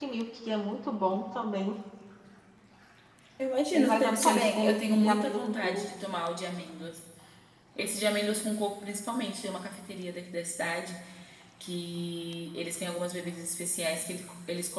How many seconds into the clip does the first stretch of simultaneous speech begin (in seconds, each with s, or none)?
3.7 s